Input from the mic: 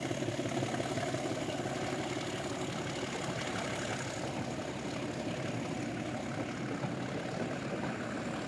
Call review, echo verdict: none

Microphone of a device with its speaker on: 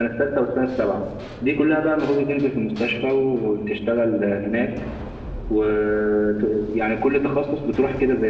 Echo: none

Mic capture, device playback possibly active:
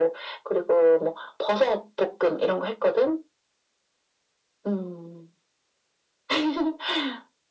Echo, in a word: present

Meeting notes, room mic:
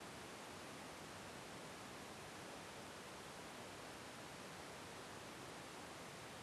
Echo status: none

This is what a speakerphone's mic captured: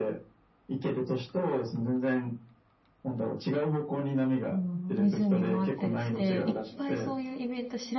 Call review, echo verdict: present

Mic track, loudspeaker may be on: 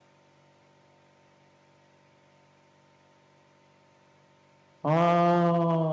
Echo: none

